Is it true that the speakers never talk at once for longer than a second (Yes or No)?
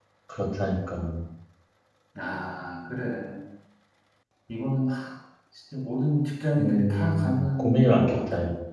No